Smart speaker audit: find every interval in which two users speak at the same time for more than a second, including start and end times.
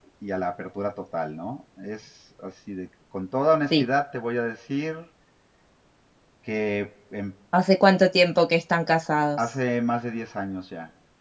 none

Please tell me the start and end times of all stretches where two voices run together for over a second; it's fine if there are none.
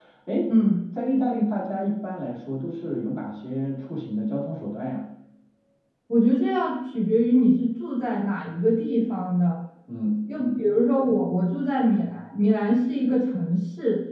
none

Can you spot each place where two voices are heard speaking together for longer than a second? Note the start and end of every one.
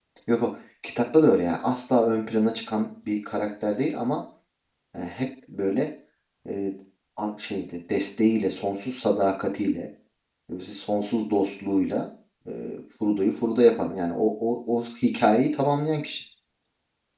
none

